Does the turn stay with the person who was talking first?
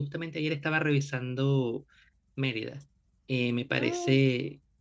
Yes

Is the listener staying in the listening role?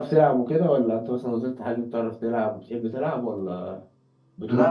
No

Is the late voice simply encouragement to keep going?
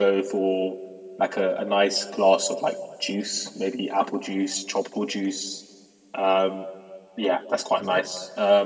Yes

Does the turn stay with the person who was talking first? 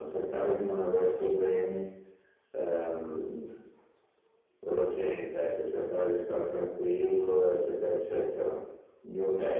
No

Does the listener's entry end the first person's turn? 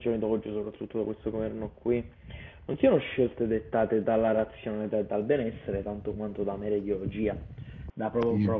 No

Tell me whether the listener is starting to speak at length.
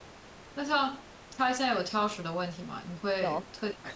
No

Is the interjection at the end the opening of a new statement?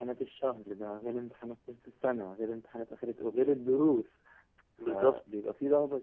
No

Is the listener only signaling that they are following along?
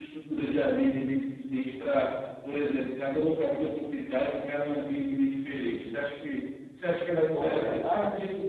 No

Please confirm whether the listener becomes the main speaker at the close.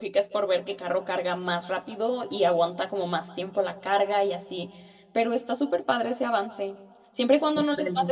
No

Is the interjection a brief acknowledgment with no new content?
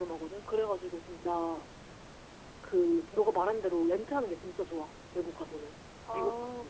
No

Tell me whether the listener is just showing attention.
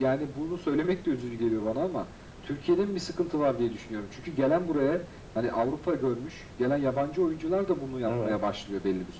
Yes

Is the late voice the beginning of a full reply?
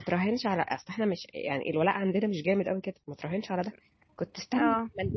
No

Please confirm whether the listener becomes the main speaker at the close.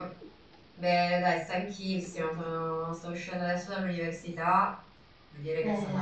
No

